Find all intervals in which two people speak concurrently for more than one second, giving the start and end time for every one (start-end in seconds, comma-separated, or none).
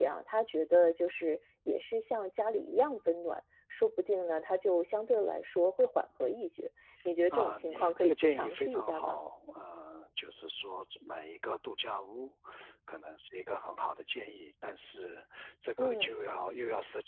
7.3-9.2